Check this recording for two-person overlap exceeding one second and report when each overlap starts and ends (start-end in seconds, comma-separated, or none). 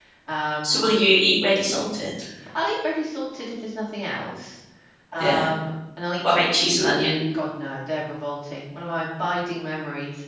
none